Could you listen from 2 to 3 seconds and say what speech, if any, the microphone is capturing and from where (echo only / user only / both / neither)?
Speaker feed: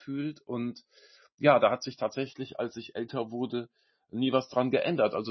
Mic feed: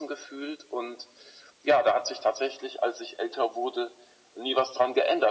echo only